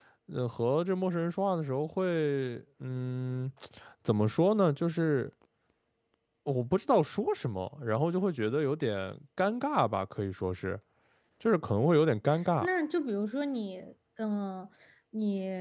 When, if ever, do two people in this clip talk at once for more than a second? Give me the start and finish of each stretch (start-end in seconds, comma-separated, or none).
none